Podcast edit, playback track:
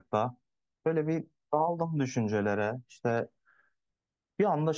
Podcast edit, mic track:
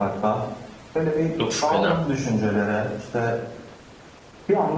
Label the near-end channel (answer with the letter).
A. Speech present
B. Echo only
A